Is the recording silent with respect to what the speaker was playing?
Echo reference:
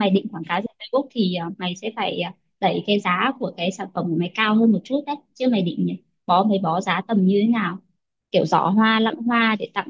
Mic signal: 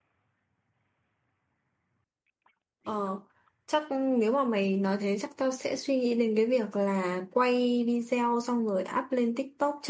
Yes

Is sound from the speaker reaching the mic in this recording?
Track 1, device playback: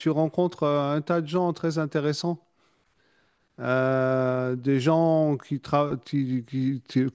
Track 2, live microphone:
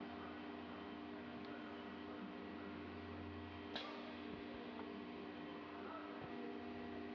No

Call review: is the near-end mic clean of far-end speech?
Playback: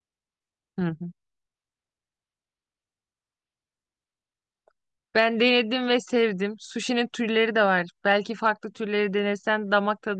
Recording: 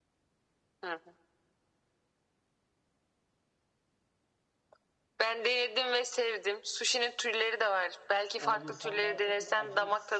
No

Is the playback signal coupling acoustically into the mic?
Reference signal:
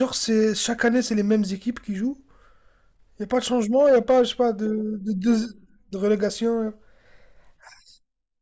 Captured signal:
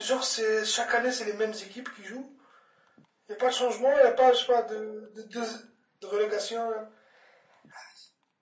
Yes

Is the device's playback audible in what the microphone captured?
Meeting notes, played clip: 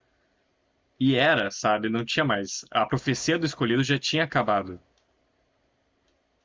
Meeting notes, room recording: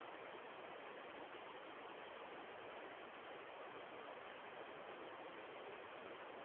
No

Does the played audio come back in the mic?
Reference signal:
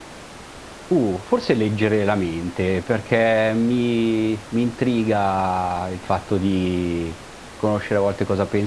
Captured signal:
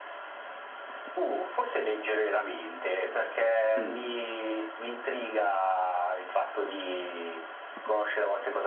Yes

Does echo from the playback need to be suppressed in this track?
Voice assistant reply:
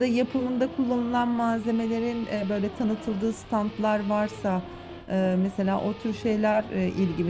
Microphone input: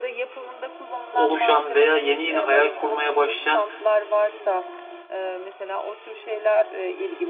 Yes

